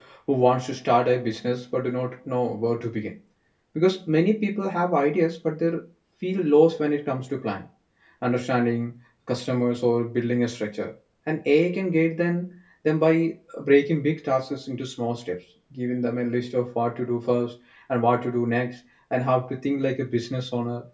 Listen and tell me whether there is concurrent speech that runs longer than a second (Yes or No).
No